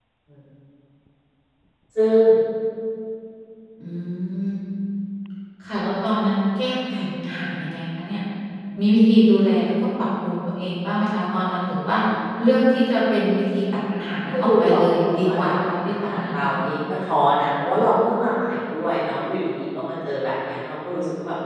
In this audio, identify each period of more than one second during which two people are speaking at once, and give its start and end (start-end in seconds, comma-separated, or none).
14.3-16.5